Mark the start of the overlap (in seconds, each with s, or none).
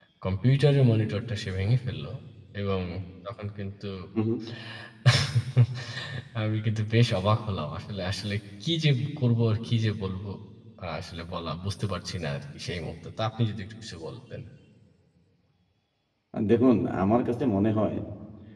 none